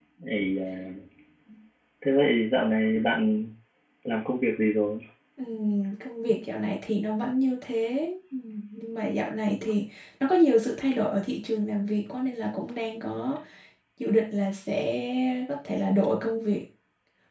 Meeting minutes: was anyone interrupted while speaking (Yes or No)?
No